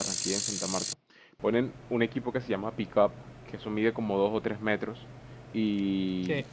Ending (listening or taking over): listening